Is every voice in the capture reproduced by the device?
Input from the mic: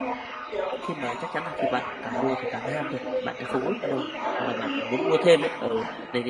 No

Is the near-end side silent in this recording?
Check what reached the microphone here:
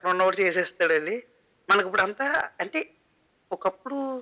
Yes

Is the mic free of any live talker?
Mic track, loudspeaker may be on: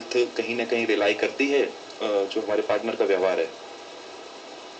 Yes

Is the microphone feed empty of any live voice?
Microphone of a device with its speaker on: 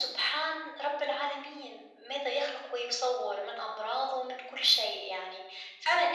Yes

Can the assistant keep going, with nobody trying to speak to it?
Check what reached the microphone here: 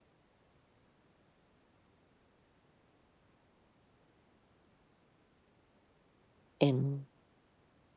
No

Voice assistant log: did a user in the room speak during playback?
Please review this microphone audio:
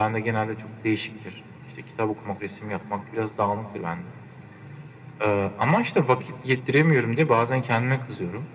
No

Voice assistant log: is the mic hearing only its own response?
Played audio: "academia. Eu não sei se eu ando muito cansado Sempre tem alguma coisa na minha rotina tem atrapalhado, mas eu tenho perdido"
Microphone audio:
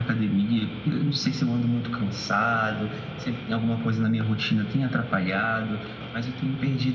Yes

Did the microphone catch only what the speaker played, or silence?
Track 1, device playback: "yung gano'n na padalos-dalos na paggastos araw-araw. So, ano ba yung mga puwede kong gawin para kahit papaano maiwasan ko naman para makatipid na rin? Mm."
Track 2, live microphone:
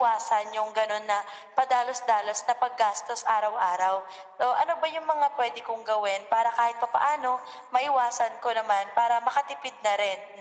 Yes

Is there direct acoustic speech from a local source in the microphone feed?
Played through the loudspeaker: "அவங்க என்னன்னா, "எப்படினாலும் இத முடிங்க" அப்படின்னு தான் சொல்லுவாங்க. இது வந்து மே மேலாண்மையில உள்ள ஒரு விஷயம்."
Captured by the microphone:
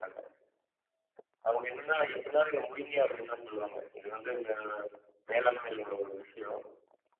No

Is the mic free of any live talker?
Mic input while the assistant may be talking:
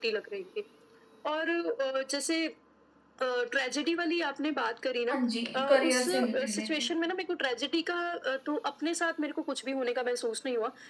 No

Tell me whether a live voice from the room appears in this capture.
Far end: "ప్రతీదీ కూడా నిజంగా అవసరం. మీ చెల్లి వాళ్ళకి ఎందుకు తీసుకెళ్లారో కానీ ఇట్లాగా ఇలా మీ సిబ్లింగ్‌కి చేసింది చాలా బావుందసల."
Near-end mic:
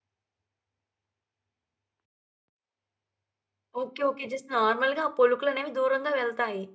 Yes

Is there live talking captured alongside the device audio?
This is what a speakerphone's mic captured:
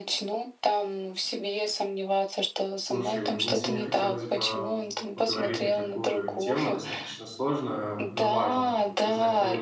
Yes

